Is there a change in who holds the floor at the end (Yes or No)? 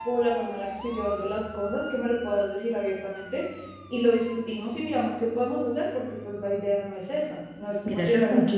Yes